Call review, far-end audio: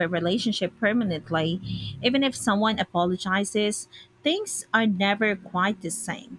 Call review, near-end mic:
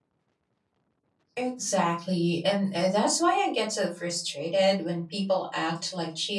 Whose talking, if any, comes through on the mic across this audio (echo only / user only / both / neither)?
user only